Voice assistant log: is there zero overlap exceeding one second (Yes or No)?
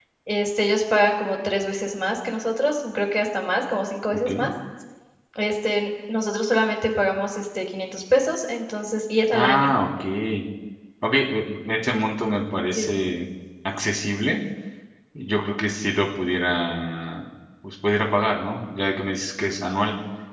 Yes